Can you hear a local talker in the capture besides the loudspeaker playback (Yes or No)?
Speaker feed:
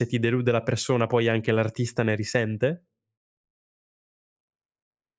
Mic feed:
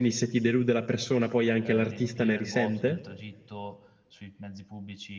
Yes